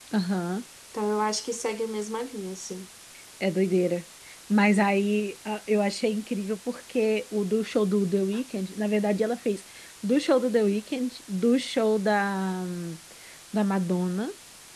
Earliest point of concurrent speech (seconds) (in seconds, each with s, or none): none